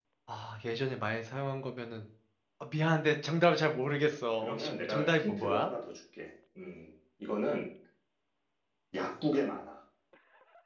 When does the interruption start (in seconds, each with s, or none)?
4.4 s